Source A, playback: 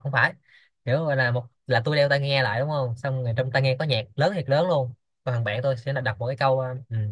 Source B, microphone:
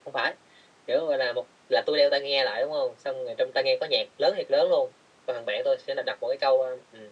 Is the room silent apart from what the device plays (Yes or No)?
Yes